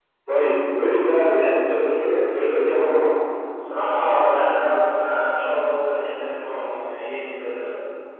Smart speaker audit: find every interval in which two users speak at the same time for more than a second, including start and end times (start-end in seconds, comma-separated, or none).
none